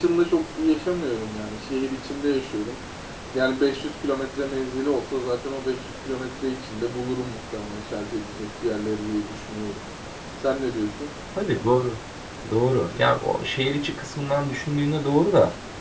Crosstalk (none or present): none